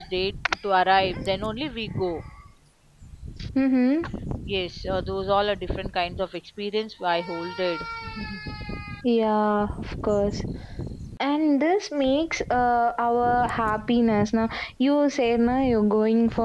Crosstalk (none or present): none